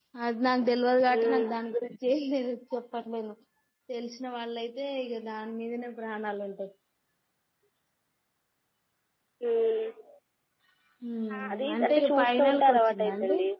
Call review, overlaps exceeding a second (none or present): present